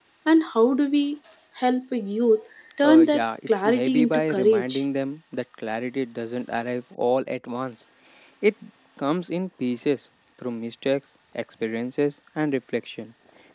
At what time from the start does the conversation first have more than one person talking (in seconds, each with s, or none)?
2.8 s